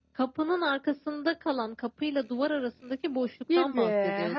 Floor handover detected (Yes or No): Yes